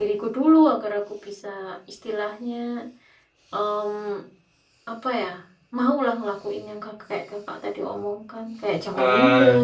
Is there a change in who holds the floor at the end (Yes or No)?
Yes